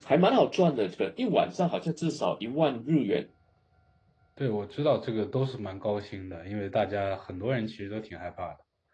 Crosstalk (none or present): none